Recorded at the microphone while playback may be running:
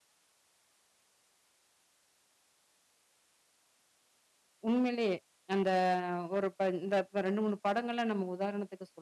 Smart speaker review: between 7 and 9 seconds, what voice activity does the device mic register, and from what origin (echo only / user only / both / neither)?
user only